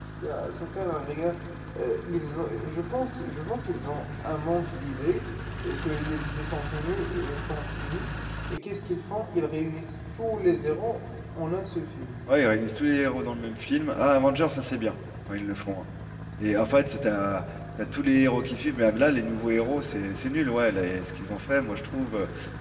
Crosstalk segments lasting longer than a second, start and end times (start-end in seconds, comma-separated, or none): none